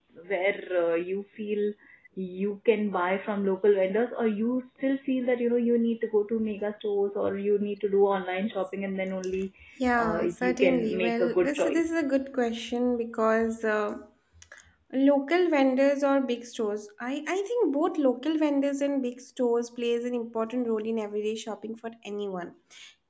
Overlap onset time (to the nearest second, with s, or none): 10 s